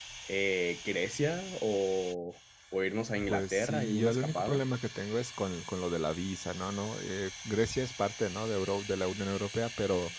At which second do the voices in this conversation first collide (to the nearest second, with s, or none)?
3 s